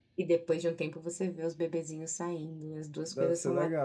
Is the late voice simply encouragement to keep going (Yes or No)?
No